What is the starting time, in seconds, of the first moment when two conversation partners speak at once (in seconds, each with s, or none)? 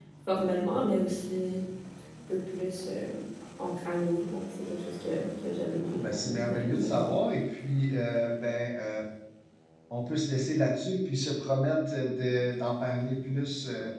5.8 s